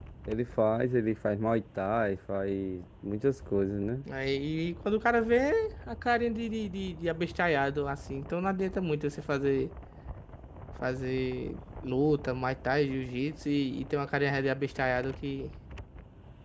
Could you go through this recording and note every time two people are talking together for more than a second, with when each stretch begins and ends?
none

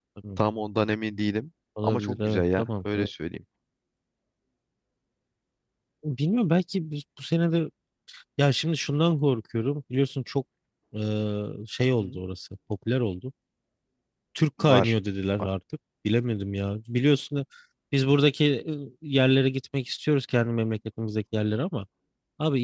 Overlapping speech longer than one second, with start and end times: 1.8-3.1

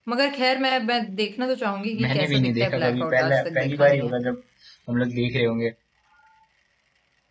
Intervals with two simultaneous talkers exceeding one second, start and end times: 2.0-4.1

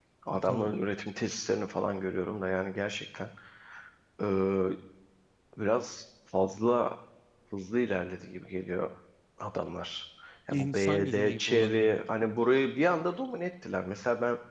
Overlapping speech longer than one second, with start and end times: 10.5-11.9

